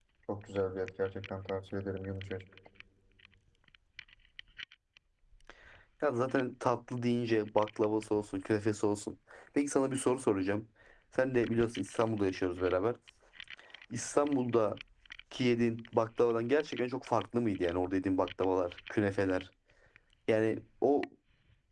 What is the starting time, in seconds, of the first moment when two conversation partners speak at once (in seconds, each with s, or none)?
none